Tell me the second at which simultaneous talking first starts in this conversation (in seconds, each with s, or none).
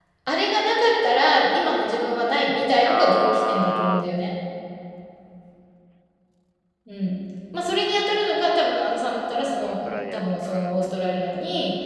2.9 s